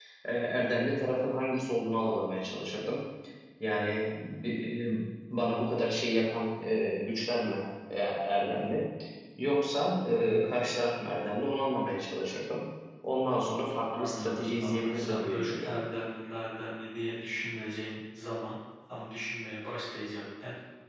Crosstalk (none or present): present